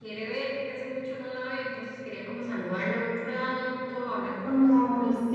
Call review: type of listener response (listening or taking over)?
taking over